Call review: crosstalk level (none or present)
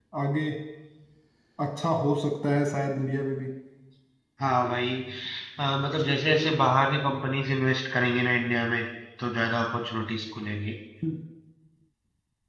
none